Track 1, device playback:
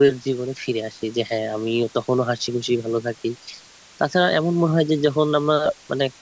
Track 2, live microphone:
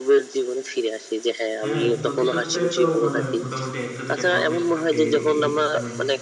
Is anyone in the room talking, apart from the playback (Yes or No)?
Yes